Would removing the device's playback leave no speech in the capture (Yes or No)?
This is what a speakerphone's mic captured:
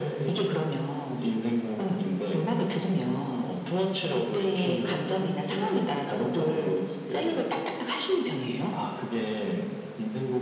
Yes